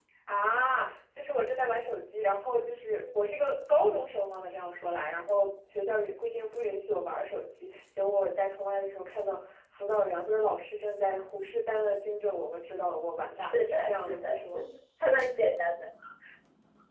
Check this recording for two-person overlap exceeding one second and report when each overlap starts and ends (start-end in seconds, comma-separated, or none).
13.4-14.6